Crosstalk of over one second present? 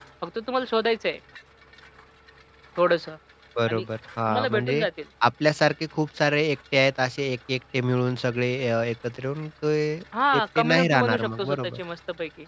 Yes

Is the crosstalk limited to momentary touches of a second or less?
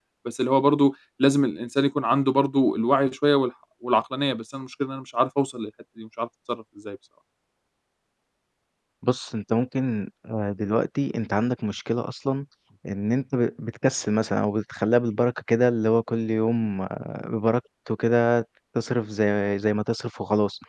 Yes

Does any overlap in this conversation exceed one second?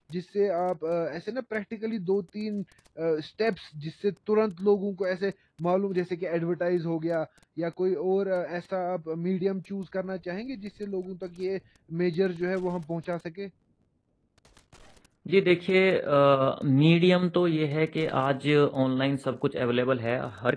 No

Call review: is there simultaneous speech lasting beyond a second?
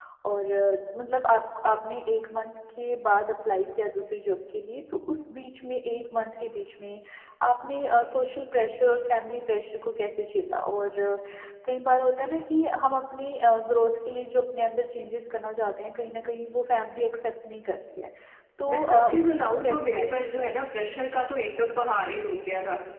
Yes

